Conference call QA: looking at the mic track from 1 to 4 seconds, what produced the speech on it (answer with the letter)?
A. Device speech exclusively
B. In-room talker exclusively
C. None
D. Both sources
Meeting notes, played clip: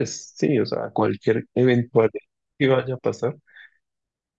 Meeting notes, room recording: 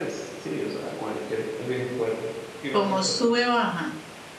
D